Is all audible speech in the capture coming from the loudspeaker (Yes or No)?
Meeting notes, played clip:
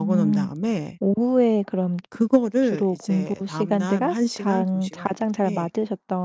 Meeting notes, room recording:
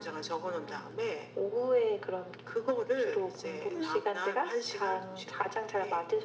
No